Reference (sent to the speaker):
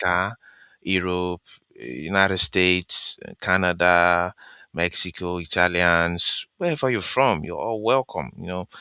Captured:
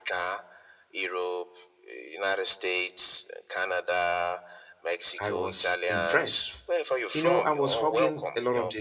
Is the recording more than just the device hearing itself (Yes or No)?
Yes